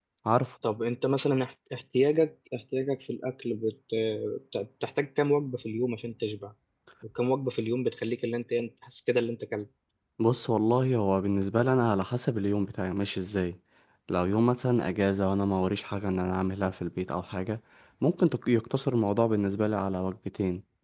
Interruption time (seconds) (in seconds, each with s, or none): none